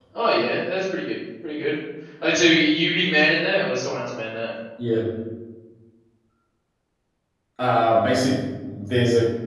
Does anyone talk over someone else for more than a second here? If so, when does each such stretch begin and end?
none

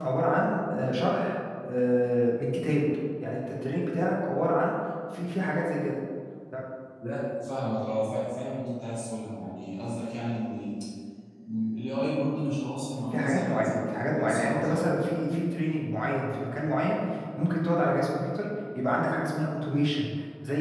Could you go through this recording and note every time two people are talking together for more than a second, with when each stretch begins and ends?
13.1-14.8

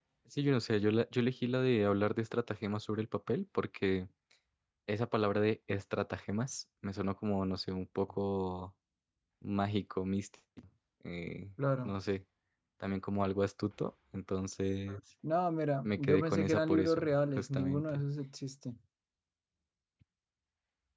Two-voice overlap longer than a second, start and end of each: 15.8-18.0

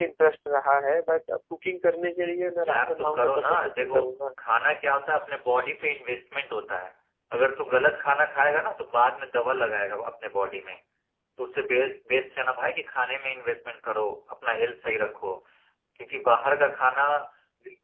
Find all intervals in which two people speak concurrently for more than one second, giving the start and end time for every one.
2.6-4.0

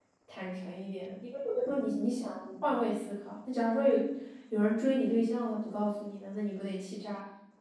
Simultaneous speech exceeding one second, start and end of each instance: none

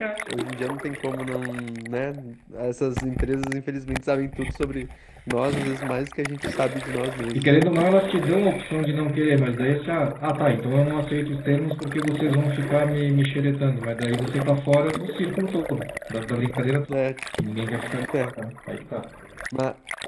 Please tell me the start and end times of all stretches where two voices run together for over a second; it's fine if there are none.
none

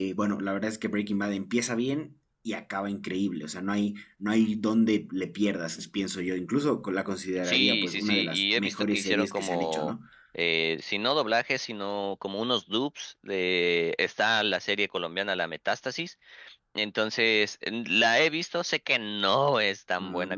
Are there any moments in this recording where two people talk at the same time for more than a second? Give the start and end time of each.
7.4-9.9

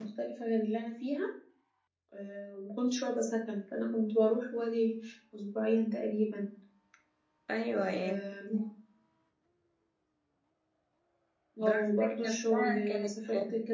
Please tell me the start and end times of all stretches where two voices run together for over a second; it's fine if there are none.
11.6-13.1

